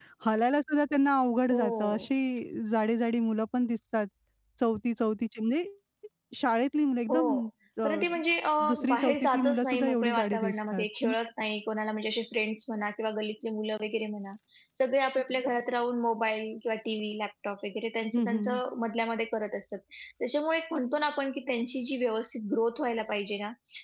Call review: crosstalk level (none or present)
present